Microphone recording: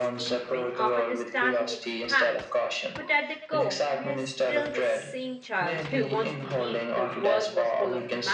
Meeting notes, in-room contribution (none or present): present